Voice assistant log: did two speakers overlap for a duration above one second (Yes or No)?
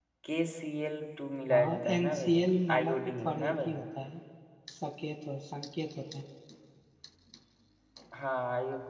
Yes